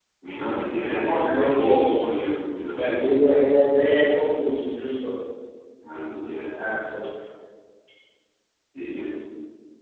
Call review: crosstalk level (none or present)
present